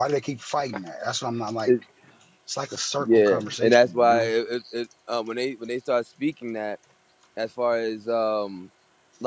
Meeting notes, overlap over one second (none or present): present